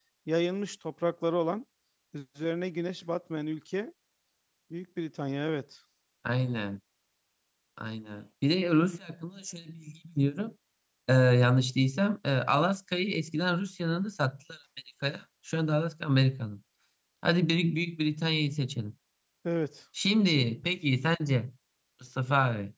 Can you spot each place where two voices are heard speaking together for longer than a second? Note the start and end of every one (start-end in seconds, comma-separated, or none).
none